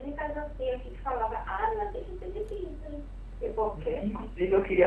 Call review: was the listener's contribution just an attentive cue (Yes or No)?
No